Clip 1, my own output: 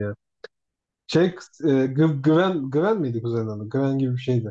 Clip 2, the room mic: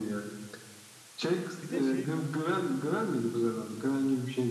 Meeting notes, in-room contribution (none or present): present